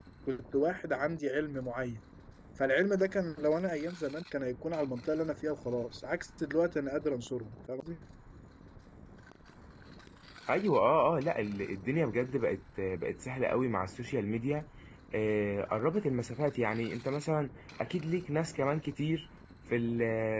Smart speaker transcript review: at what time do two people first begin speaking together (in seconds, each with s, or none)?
none